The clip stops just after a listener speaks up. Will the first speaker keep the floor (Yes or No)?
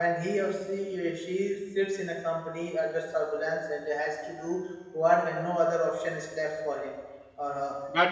Yes